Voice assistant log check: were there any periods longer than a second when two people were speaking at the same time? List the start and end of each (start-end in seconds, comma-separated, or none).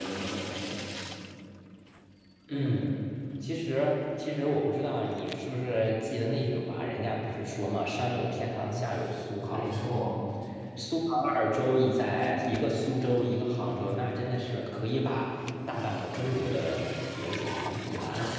none